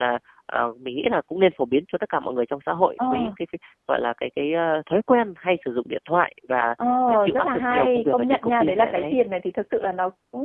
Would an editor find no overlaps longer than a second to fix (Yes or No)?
No